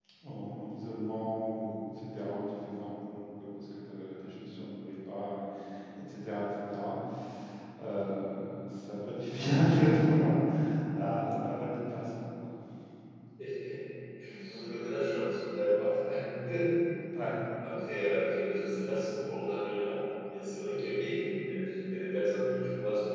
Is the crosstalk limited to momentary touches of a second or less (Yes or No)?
Yes